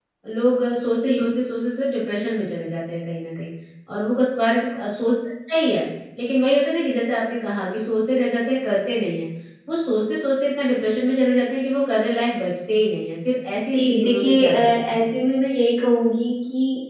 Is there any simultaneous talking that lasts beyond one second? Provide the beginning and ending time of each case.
13.6-15.1

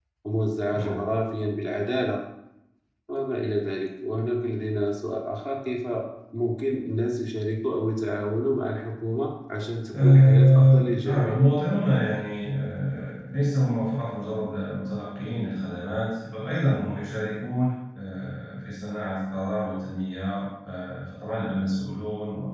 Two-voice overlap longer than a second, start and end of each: 9.9-11.4

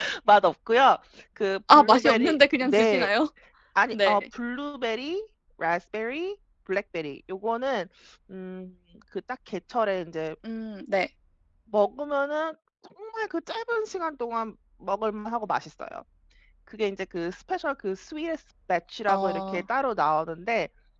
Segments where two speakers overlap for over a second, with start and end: 1.7-3.1

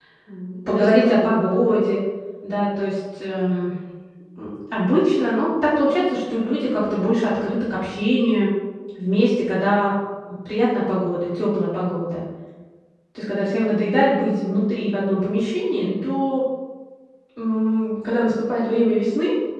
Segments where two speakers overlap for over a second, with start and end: 0.7-2.0

